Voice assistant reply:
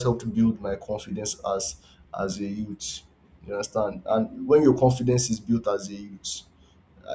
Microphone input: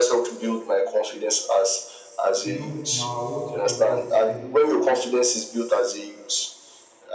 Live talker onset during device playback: 2.4 s

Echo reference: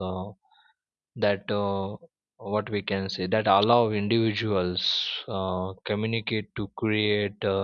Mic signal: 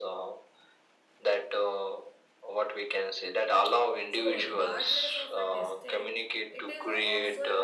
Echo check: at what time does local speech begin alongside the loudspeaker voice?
4.1 s

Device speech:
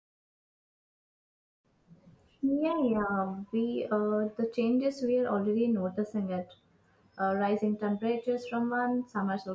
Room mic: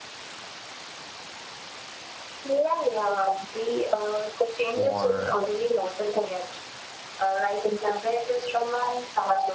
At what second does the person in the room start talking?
4.7 s

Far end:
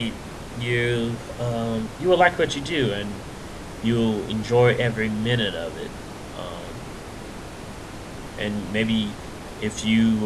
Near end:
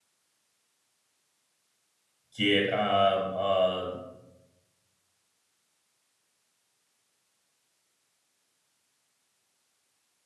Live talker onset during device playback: 2.3 s

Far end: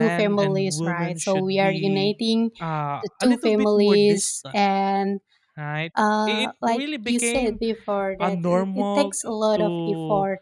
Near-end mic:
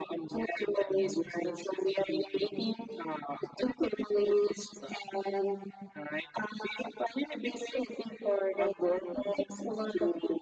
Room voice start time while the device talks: none

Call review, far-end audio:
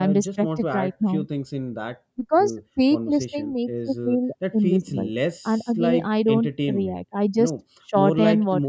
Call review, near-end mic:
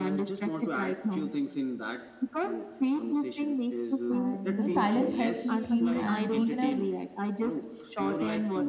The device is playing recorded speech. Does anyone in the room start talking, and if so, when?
4.1 s

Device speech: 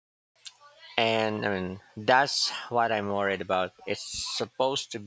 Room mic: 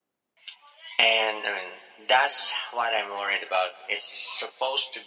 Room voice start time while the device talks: none

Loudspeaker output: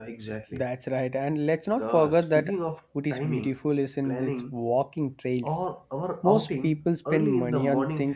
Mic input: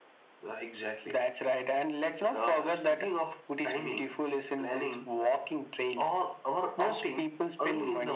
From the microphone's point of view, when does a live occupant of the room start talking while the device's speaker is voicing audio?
none

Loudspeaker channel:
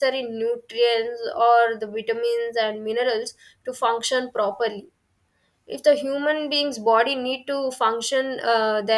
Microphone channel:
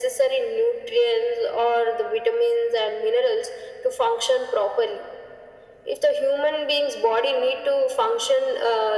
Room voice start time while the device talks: none

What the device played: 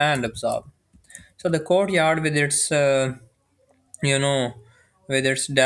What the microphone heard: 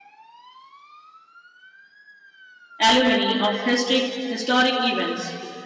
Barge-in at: 2.8 s

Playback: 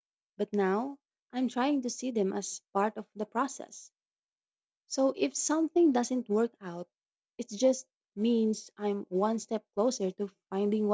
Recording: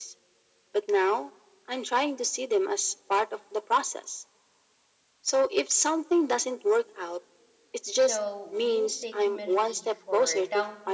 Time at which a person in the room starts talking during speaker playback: 8.0 s

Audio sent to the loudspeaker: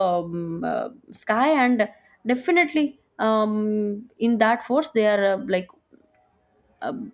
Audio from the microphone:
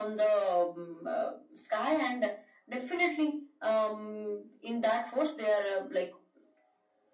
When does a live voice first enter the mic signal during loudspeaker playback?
none

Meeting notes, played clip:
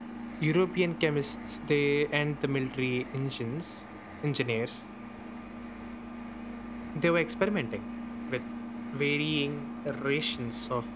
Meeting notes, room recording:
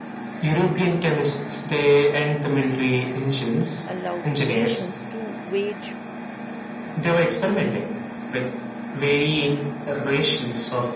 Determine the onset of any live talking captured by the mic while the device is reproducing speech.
3.9 s

